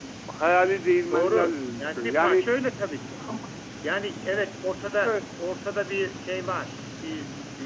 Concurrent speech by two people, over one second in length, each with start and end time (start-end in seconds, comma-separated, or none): 1.1-2.5